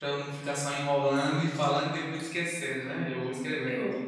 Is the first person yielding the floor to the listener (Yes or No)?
Yes